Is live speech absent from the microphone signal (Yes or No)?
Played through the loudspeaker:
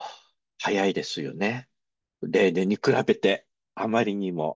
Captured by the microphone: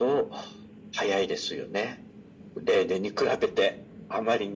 Yes